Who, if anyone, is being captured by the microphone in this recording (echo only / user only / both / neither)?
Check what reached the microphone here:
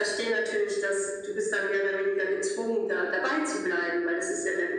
echo only